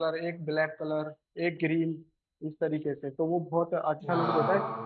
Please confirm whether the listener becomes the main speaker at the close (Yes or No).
No